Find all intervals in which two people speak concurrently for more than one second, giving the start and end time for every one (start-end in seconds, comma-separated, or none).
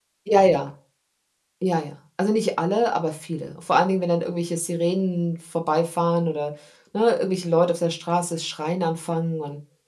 none